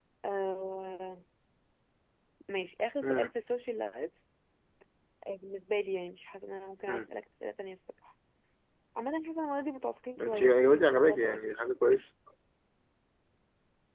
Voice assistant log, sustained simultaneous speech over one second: present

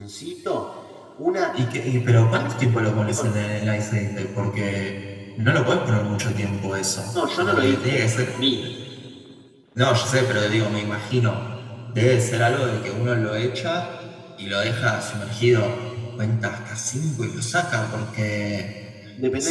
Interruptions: present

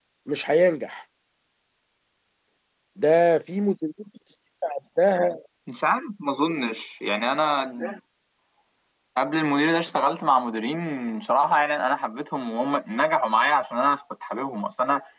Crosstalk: none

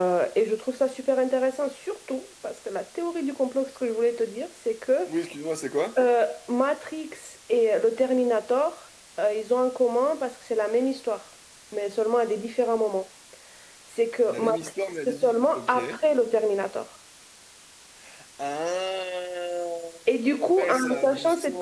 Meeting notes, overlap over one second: present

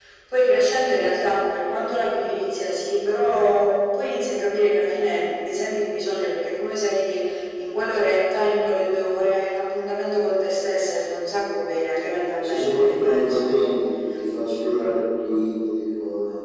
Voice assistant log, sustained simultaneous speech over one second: present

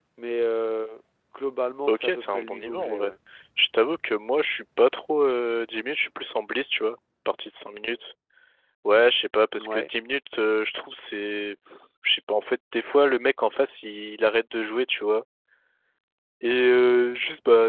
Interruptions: present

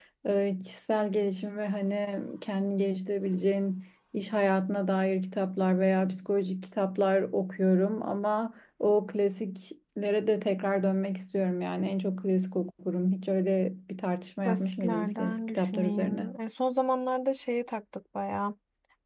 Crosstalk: present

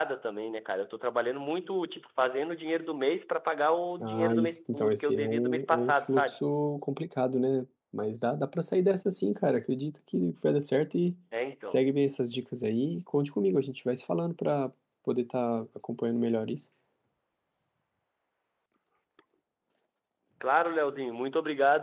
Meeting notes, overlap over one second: present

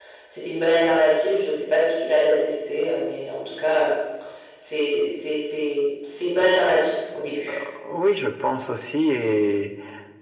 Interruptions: none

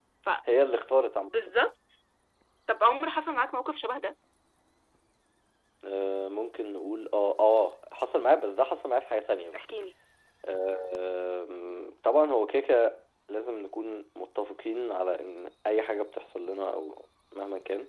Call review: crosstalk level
none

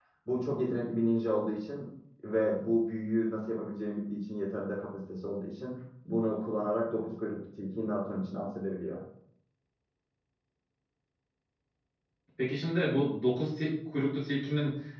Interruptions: none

